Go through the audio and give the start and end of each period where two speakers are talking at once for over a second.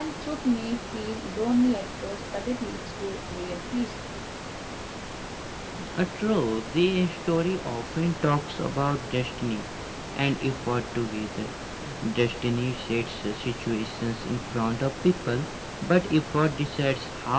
none

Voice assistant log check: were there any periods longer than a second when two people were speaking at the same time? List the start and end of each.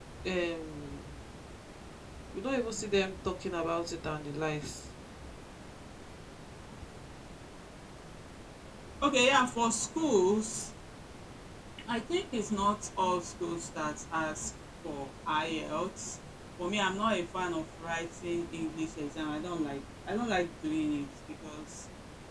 none

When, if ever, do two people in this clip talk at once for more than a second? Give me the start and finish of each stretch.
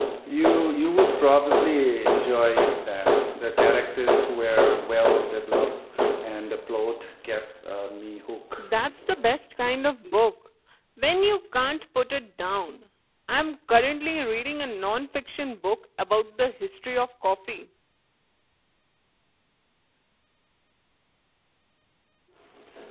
none

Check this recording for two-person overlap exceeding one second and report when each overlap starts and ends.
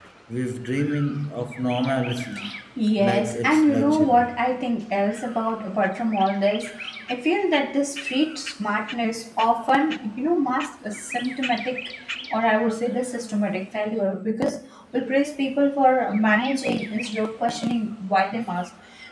3.0-4.2

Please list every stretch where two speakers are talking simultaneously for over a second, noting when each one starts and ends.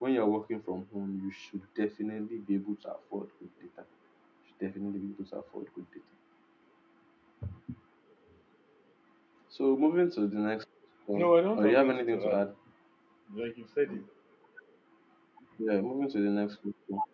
11.1-12.4

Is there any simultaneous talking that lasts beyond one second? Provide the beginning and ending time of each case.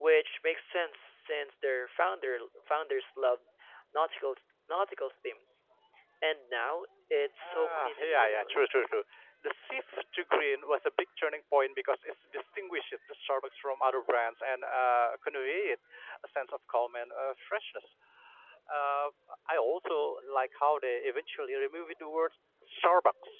7.4-8.7

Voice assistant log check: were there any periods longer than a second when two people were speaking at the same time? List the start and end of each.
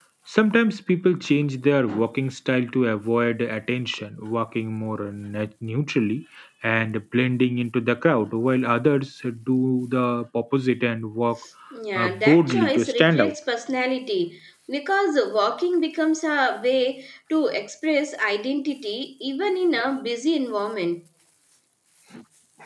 11.9-13.3

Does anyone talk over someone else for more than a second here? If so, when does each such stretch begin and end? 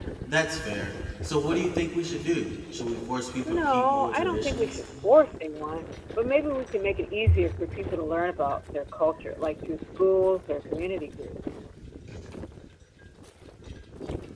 3.4-4.8

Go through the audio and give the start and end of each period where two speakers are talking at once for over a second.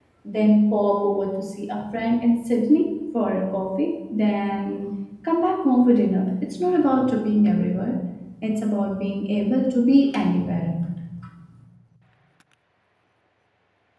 none

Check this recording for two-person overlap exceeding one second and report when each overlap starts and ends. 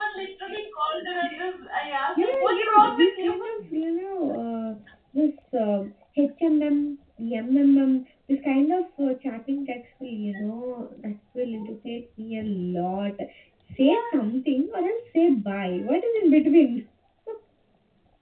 2.2-3.6

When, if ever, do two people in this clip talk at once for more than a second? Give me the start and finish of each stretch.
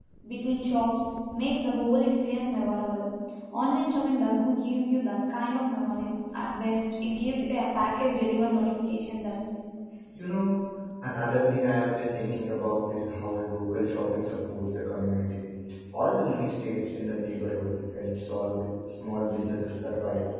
none

